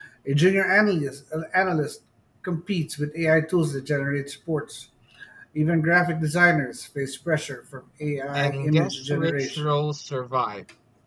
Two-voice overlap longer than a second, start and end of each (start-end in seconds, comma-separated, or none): 8.3-9.7